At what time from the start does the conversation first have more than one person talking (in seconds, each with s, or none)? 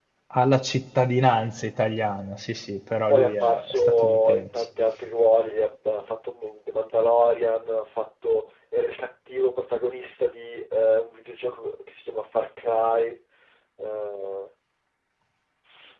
3.1 s